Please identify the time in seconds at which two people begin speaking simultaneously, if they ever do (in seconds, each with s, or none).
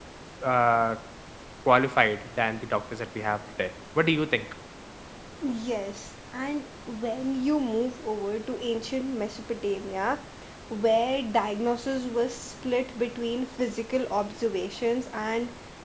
none